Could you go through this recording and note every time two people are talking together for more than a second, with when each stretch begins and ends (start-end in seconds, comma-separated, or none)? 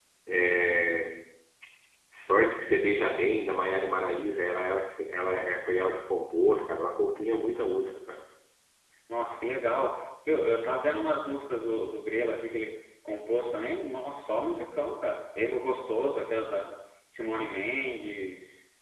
none